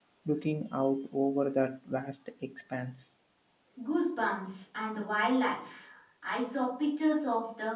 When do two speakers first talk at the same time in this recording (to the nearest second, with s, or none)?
none